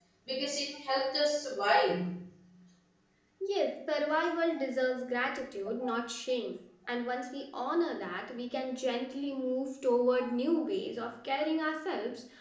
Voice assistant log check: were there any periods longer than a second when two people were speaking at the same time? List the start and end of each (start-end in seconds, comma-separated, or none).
none